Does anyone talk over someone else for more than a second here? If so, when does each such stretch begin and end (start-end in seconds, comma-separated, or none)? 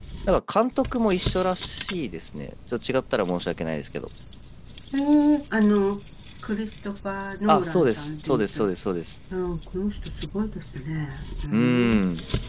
7.5-8.7